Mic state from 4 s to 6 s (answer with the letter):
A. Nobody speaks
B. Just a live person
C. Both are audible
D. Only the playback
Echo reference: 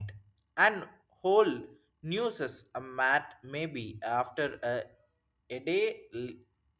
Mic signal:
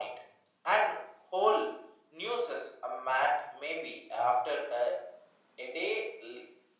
D